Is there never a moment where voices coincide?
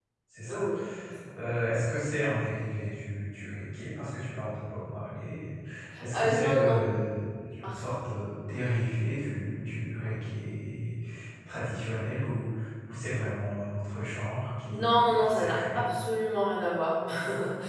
No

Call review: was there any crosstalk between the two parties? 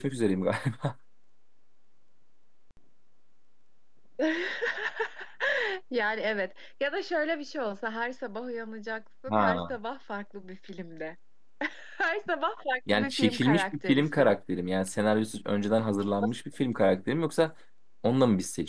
Yes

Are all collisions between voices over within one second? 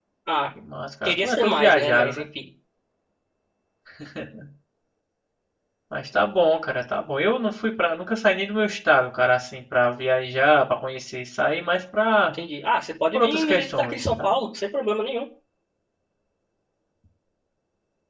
No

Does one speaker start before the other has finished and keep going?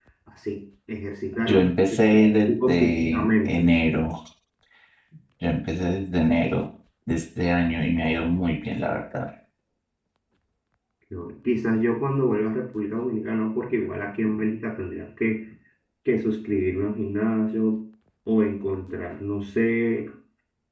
Yes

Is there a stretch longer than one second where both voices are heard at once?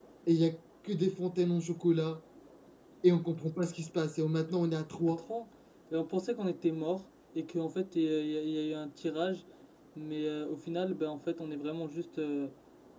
No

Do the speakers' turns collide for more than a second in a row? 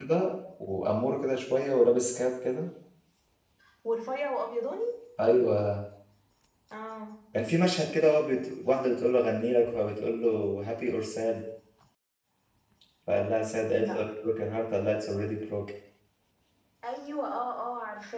No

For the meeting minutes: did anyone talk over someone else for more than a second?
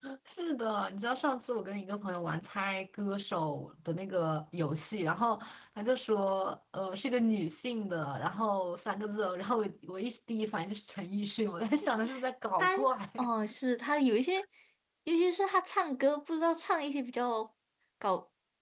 No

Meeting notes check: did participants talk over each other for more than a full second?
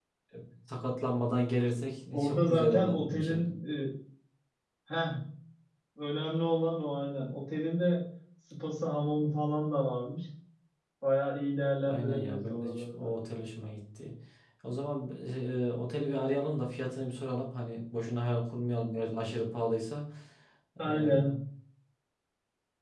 Yes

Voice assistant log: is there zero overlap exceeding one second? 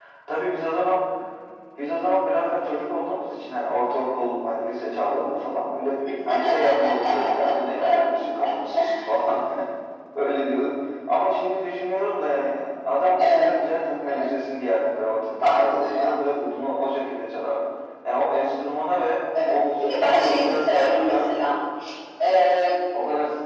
No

